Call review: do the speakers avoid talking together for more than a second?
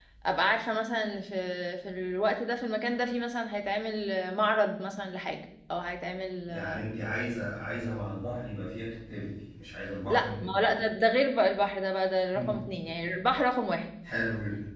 Yes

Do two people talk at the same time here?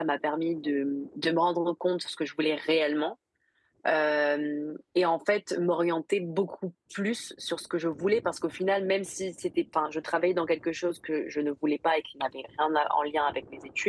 No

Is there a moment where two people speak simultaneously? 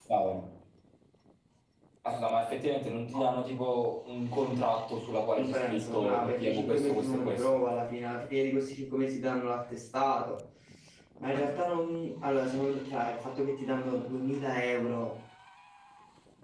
Yes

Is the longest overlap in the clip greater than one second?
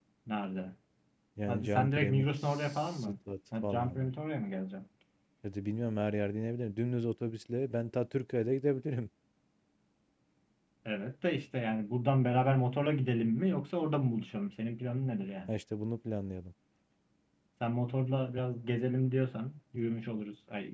Yes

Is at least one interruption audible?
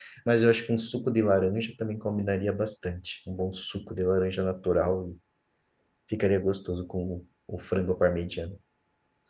No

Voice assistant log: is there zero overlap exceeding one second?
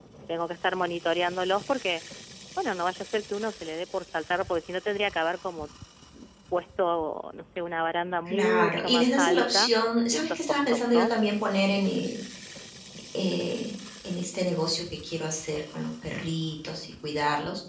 No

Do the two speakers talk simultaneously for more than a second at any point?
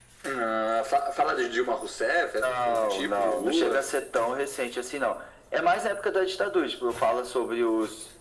Yes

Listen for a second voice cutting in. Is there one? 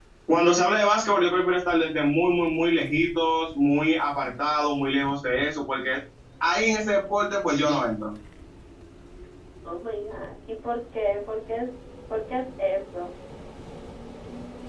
No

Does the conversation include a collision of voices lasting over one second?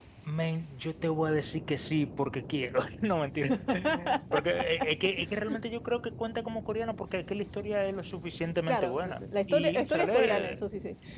Yes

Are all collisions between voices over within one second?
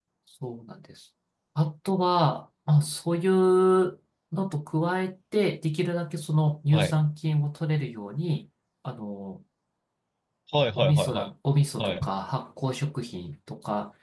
Yes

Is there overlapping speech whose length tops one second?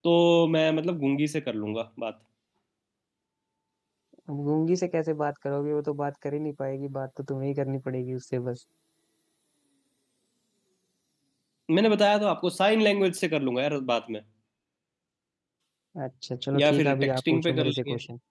Yes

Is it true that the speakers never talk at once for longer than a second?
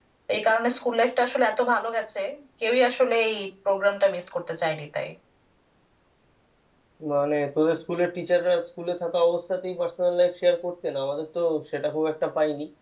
Yes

